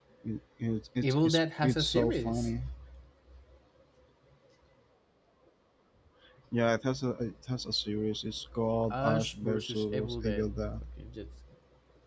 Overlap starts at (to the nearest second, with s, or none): 1 s